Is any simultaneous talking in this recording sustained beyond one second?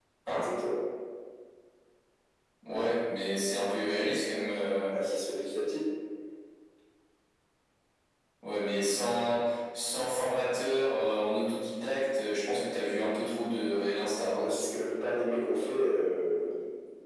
No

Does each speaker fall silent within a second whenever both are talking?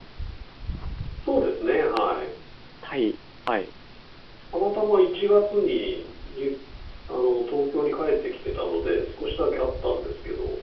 Yes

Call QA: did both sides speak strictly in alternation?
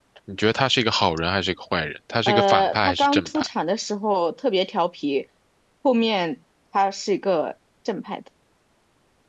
No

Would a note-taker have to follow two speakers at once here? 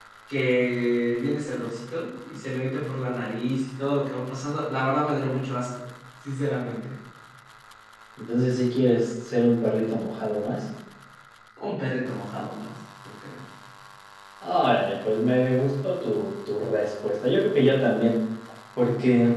No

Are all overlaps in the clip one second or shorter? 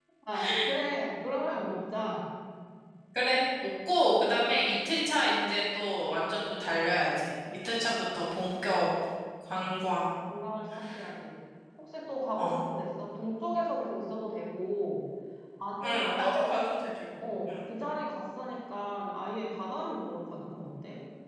Yes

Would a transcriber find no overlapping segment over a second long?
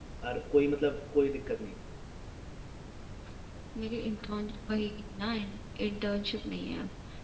Yes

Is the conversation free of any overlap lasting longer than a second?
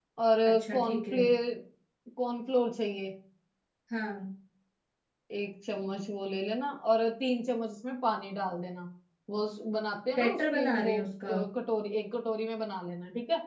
No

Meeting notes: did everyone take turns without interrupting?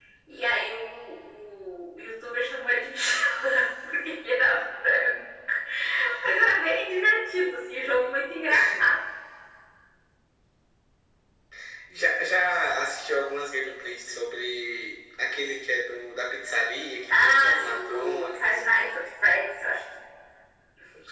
No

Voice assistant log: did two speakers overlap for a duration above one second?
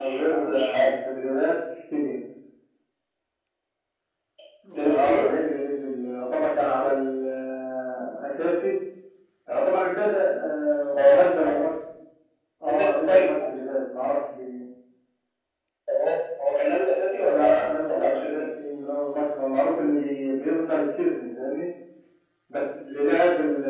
Yes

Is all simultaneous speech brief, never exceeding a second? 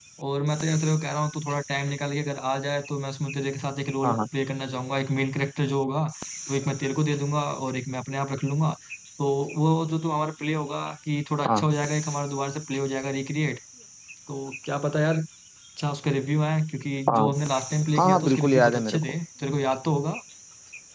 No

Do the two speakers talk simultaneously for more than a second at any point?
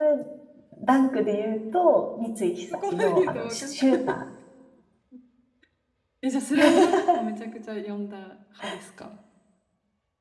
Yes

